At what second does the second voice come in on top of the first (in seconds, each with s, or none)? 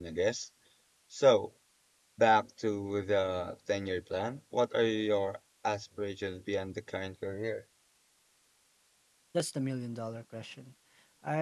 none